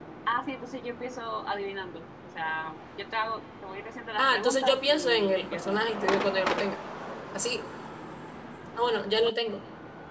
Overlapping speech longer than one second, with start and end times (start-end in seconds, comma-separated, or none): 4.2-5.8